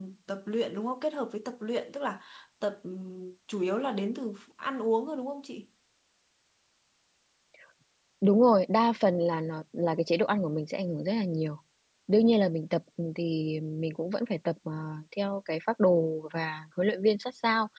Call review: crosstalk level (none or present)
none